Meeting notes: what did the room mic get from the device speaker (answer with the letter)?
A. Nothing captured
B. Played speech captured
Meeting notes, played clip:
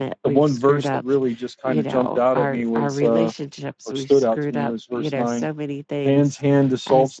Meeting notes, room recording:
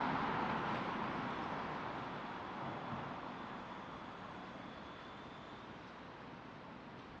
A